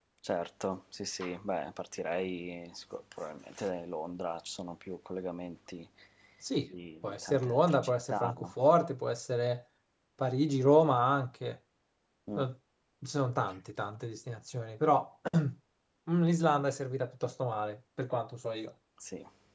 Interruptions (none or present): present